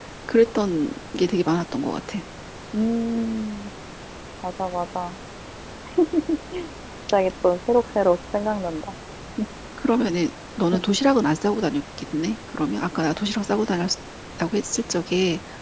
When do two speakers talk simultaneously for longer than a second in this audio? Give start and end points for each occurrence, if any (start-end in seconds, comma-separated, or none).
none